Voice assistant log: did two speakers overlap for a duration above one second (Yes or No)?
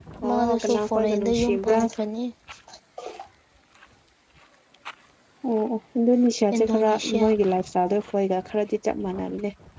Yes